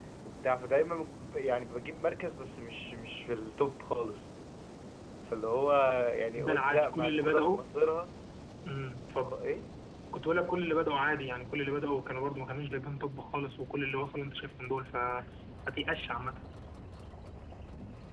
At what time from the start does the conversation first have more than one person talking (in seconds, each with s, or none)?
6.4 s